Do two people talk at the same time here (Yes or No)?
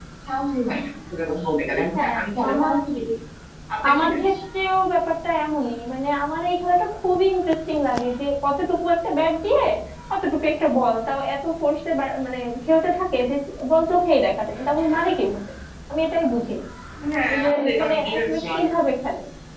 Yes